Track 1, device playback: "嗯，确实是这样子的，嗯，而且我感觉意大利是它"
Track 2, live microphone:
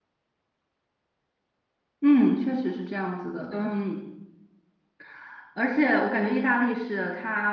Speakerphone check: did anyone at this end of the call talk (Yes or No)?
Yes